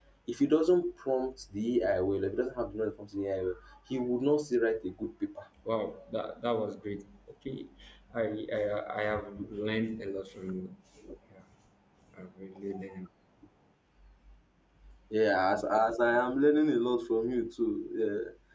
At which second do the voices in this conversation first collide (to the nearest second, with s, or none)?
none